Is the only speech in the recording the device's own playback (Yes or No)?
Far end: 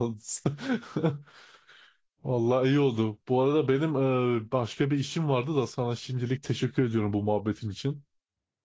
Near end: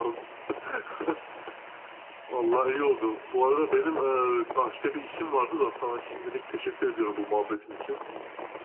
Yes